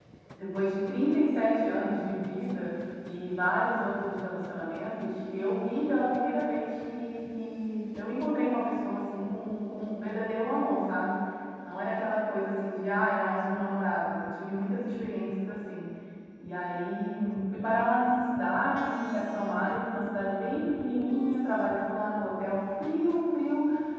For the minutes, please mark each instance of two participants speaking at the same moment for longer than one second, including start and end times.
none

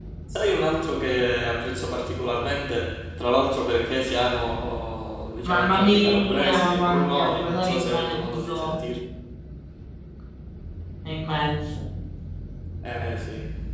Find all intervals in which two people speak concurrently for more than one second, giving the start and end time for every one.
5.5-8.8

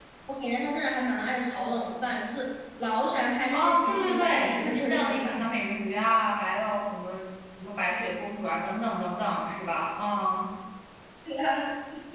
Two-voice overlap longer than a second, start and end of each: 3.5-5.4

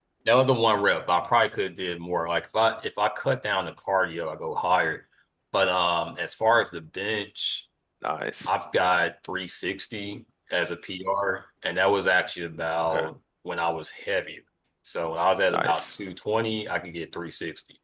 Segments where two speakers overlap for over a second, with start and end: none

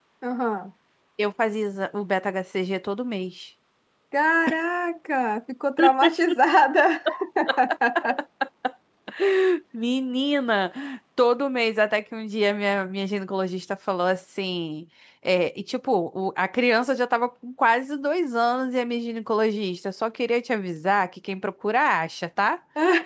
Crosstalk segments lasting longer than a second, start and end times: none

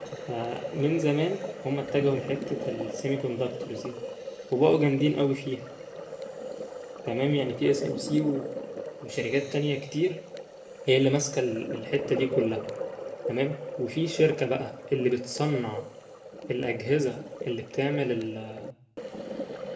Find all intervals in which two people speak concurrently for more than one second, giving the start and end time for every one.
none

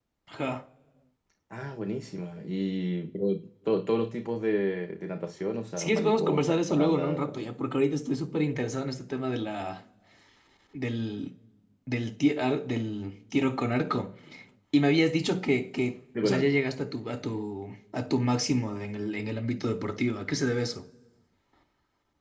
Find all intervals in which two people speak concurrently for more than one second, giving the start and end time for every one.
5.8-7.2

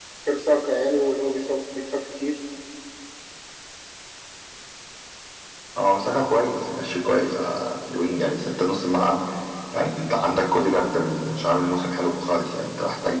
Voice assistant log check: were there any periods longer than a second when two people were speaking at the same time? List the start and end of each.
none

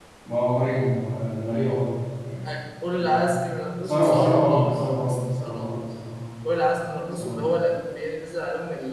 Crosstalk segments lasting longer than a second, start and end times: 3.8-5.8

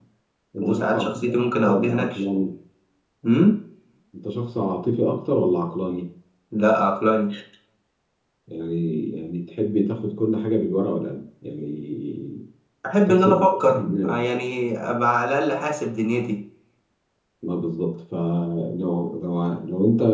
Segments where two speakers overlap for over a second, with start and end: 0.6-2.2

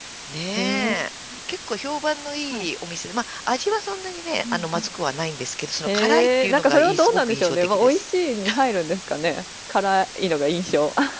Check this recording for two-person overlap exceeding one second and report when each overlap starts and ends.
5.9-8.0

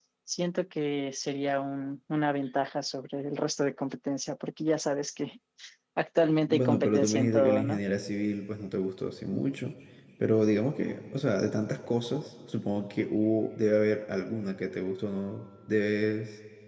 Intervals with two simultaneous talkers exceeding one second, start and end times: 6.5-7.8

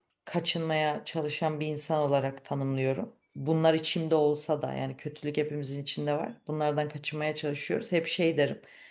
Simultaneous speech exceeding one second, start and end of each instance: none

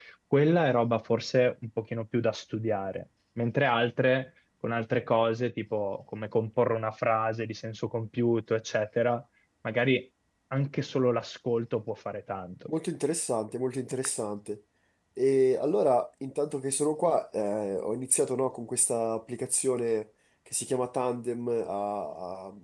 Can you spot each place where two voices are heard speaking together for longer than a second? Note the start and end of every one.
none

